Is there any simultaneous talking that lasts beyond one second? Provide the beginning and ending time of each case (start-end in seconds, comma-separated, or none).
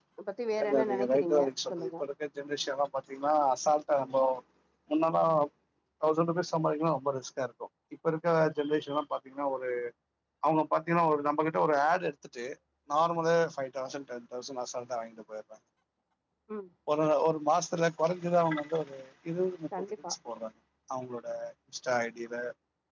0.6-1.9